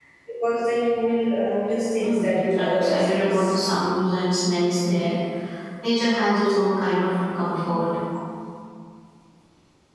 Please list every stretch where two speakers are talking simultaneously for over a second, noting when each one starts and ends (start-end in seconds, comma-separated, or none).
2.0-3.6